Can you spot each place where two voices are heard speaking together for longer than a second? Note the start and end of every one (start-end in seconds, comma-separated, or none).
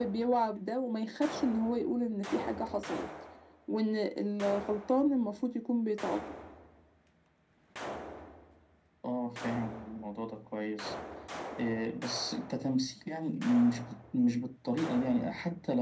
none